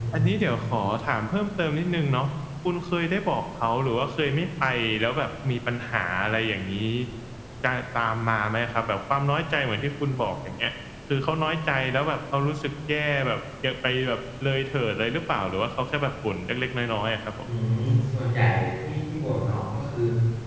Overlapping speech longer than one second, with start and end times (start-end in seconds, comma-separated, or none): none